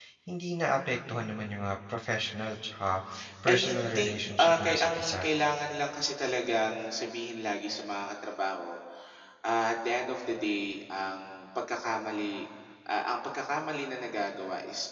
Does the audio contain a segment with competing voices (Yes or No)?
Yes